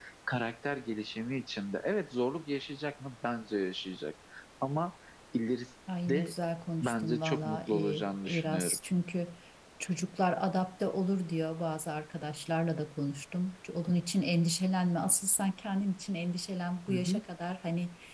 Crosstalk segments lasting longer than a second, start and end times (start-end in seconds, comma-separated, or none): 6.8-8.8